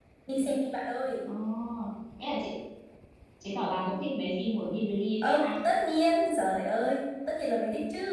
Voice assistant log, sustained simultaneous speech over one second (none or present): none